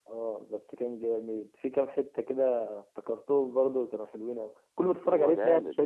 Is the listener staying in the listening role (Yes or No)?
No